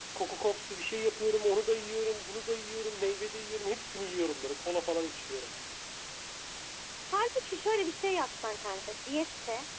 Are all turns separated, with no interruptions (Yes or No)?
Yes